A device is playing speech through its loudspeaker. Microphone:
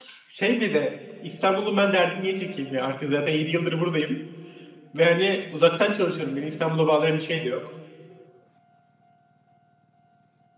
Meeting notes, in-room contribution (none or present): present